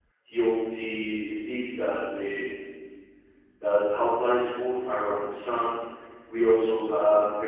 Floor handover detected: No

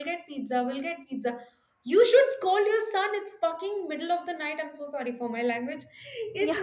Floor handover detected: No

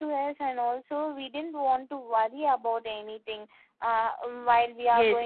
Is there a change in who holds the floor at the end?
Yes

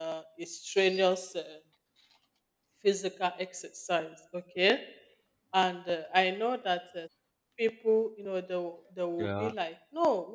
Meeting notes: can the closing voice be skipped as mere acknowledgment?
Yes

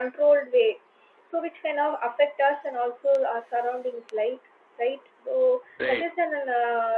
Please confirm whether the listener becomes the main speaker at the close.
No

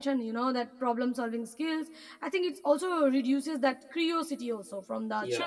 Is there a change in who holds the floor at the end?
No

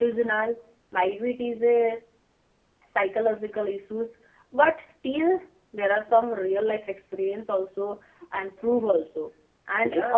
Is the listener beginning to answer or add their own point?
Yes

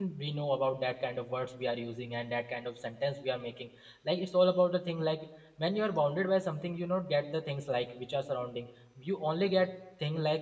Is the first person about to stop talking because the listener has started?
No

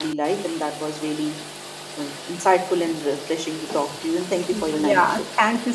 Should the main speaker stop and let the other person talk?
Yes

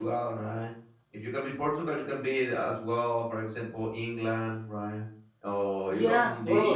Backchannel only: Yes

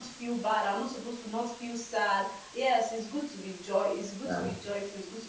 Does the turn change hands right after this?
No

